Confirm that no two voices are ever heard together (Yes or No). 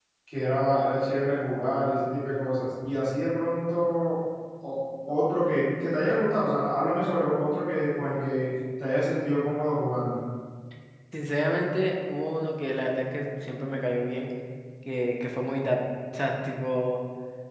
Yes